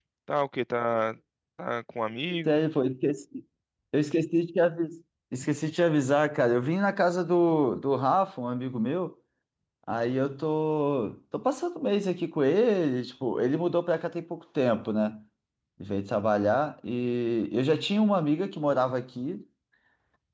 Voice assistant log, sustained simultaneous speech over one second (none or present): none